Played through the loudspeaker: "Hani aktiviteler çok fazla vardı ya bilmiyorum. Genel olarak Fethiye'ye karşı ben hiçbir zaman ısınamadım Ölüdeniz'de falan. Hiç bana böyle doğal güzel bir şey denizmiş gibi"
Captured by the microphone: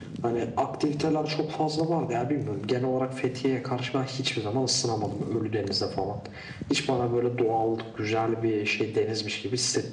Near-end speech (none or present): none